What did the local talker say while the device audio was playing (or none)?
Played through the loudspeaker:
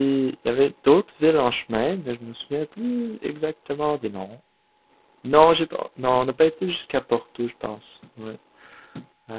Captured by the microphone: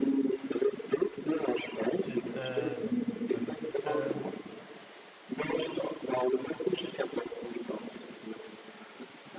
tu es, euh, dans le fond, ah, ok, oui. Euh,